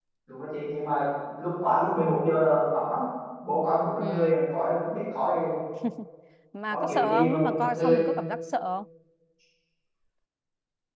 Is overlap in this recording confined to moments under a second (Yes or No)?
No